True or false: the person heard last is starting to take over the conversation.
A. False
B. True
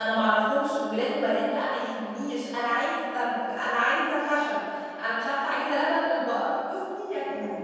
B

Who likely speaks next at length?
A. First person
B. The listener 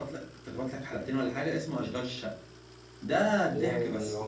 B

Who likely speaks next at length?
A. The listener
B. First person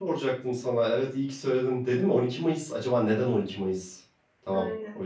A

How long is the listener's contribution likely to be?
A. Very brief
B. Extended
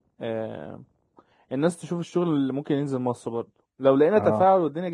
A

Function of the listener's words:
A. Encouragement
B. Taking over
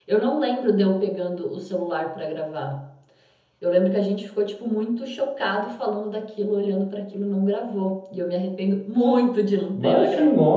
B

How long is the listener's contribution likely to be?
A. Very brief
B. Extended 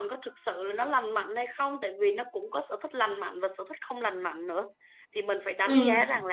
A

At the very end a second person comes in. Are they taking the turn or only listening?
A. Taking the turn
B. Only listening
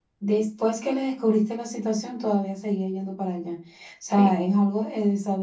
B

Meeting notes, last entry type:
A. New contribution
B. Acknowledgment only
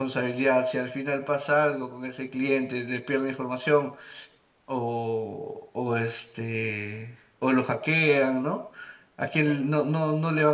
B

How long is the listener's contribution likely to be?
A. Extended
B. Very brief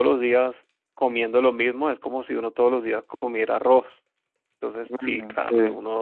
B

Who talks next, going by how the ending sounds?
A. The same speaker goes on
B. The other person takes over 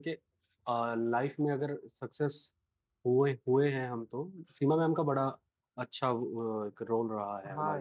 B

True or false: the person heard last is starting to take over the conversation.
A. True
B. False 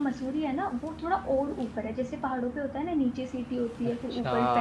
B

